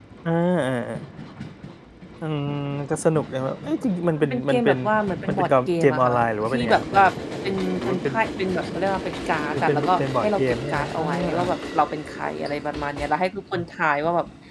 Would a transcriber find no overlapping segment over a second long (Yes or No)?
No